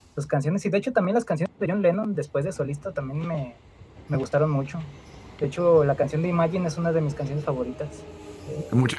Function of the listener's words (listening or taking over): taking over